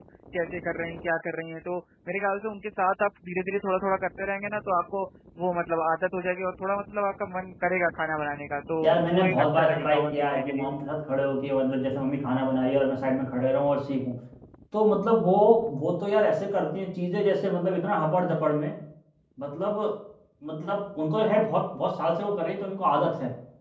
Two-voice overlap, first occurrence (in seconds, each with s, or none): 8.8 s